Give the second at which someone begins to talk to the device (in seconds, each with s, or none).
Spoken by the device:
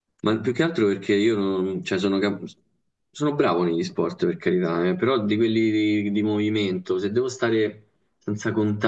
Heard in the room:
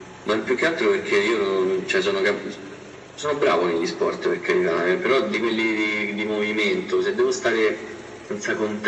none